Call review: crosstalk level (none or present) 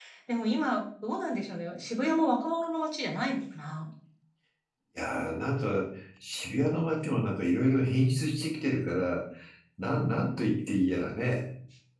none